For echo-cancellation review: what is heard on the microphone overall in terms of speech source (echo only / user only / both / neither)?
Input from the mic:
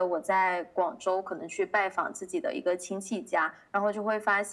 echo only